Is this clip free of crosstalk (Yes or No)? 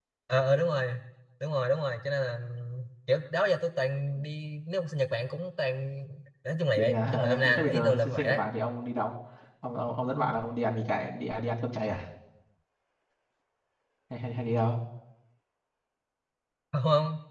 No